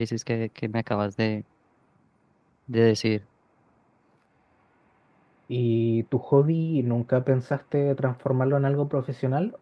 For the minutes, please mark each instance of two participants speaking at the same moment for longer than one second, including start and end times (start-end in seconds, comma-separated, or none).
none